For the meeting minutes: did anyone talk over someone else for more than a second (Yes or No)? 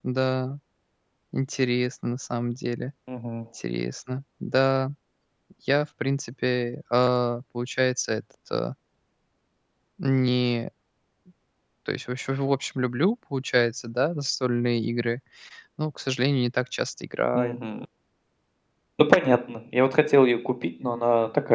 No